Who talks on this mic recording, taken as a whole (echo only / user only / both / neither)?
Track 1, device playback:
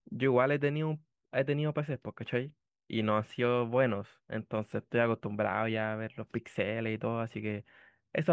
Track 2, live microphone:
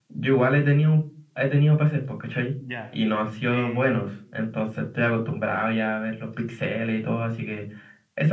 both